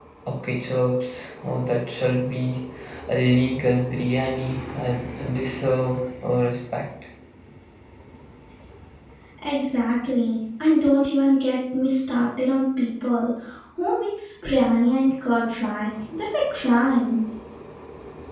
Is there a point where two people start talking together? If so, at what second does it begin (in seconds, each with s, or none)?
none